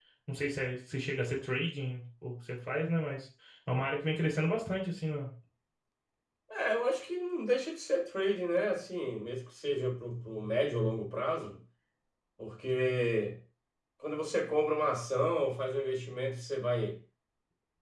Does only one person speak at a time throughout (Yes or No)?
Yes